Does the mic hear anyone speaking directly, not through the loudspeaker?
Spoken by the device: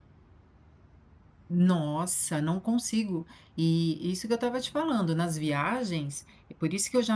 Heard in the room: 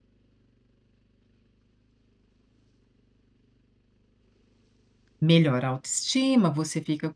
Yes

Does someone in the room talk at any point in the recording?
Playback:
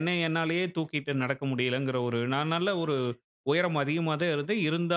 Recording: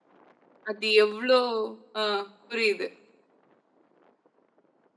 Yes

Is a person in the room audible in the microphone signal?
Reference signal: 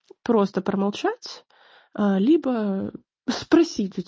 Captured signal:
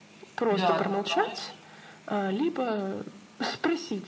Yes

